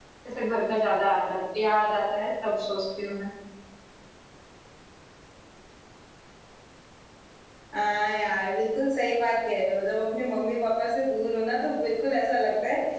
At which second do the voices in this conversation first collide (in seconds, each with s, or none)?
none